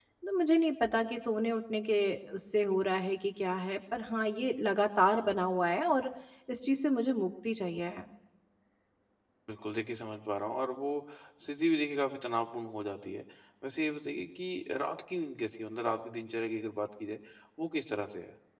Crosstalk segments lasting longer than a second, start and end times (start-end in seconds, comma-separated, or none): none